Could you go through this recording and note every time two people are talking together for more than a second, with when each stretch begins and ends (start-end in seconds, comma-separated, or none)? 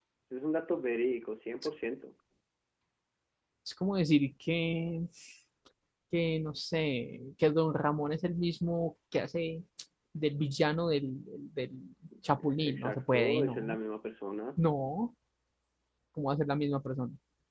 12.5-13.8